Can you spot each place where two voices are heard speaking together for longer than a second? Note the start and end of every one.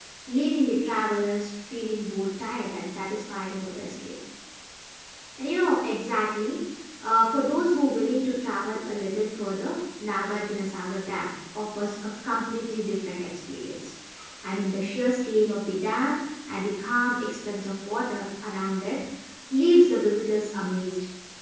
none

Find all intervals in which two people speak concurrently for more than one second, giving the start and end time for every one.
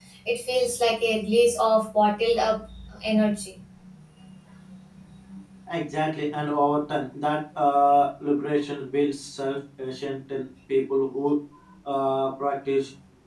none

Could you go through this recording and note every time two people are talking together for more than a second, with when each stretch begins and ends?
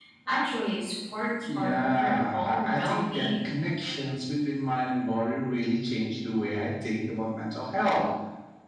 1.6-3.5

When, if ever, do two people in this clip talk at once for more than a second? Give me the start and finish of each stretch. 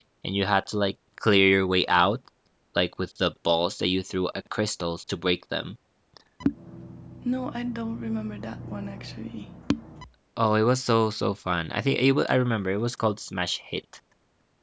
none

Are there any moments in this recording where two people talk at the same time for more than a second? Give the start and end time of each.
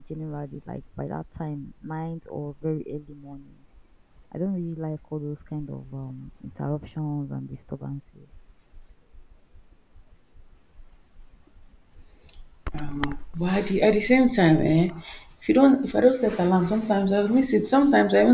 none

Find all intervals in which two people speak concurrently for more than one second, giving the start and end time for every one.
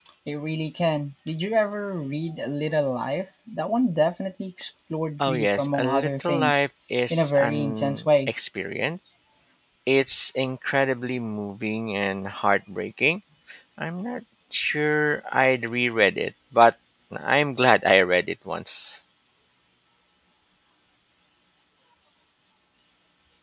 5.2-6.7, 7.1-8.3

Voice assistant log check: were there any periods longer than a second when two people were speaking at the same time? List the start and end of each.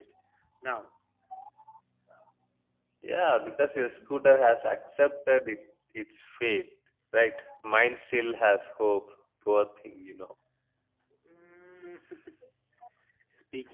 none

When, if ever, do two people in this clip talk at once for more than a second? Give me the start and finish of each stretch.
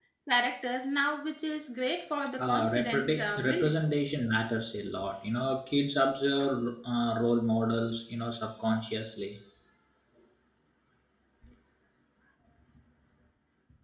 2.4-3.8

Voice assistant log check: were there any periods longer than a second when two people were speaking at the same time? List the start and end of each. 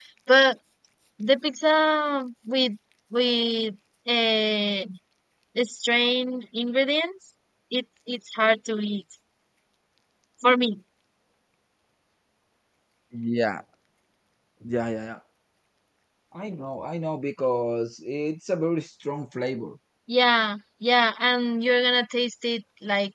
none

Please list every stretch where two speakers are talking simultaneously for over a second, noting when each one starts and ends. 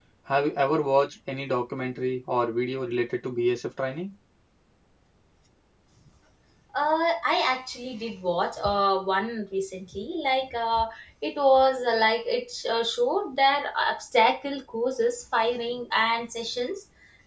none

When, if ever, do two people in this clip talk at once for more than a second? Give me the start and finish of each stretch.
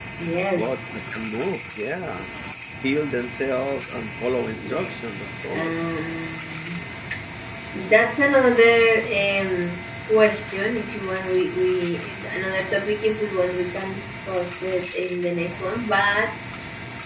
4.5-5.7

